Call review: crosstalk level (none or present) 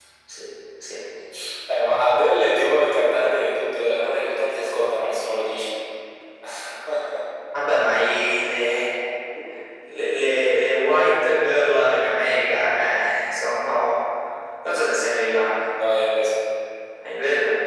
none